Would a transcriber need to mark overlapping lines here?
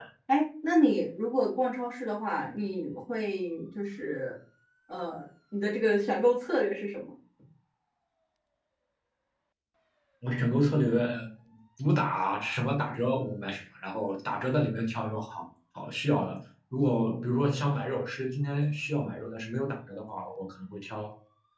No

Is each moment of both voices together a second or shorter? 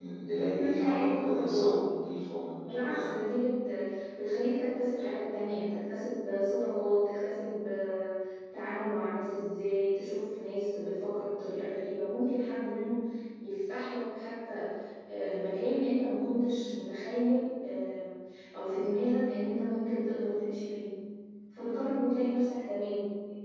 No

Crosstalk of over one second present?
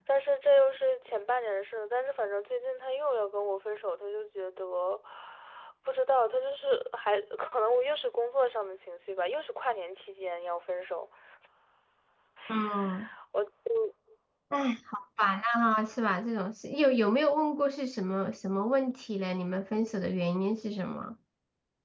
No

